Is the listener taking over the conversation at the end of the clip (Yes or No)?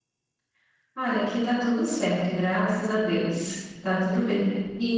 No